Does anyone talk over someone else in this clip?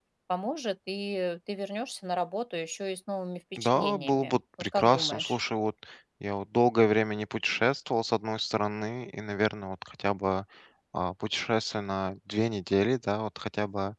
Yes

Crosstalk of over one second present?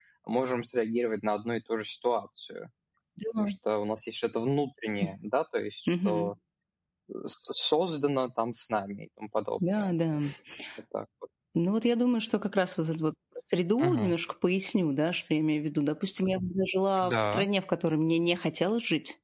No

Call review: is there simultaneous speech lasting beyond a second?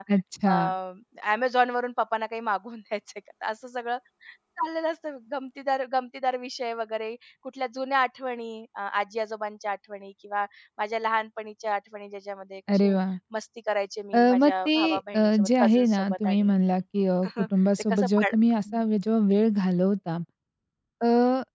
Yes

